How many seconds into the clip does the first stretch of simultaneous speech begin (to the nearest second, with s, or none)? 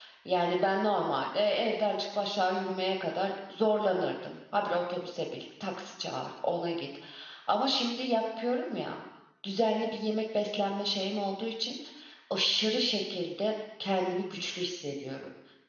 none